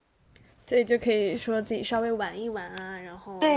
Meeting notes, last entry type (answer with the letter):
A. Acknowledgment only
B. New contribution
B